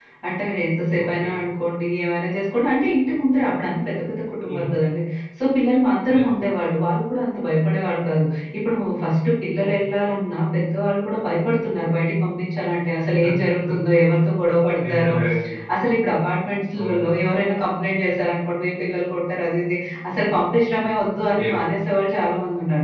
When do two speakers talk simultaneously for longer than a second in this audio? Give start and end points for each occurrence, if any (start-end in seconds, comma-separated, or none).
none